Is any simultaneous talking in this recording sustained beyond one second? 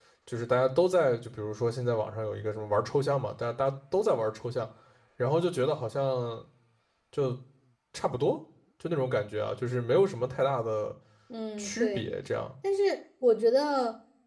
No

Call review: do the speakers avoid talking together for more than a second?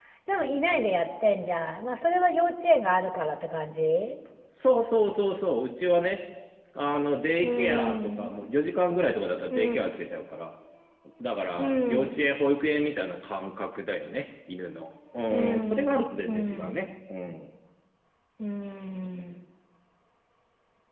No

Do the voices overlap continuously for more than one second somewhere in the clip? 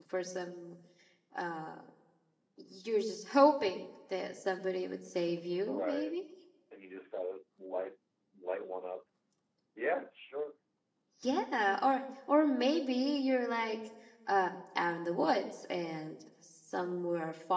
No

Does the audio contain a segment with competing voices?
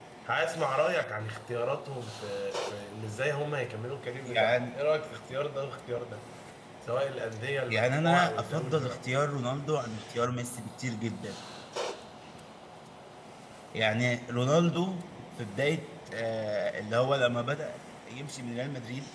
Yes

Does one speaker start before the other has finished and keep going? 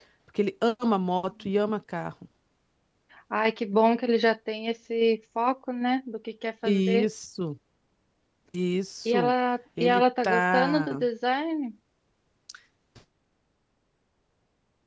Yes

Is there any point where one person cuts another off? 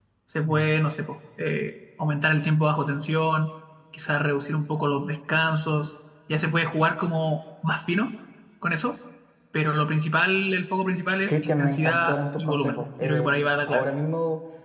Yes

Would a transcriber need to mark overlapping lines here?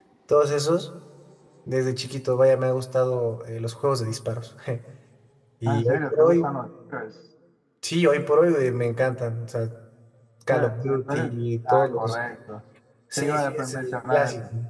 Yes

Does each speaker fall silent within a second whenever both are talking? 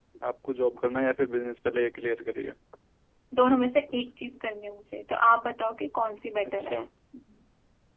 Yes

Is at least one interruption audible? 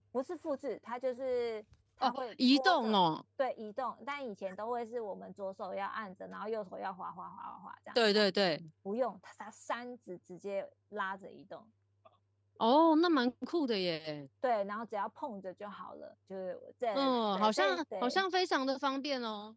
Yes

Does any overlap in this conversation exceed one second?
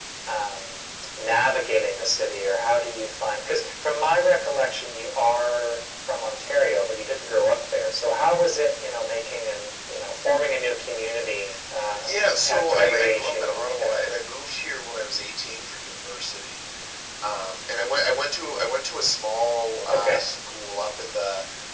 Yes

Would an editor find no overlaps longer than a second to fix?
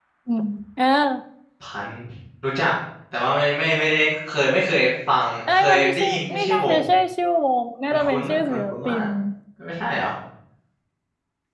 No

